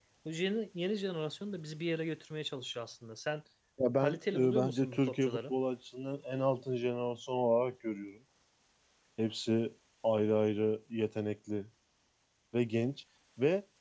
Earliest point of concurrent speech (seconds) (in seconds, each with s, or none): 4.0 s